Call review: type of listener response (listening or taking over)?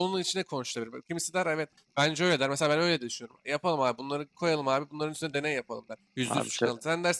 listening